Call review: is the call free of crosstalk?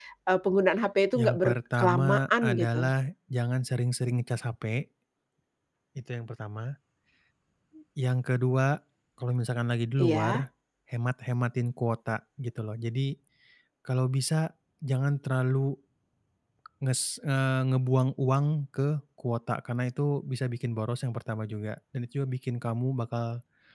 No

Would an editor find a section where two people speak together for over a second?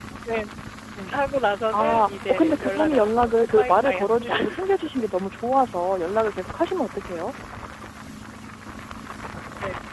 Yes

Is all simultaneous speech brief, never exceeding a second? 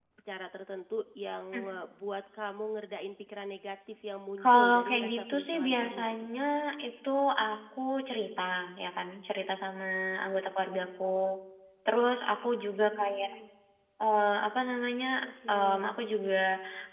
No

